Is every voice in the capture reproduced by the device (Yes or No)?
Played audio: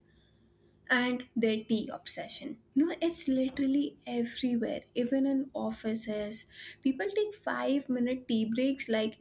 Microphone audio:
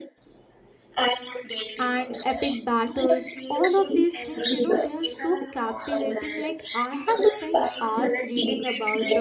No